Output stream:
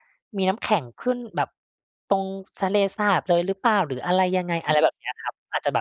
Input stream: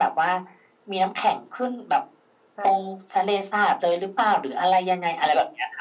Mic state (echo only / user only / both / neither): both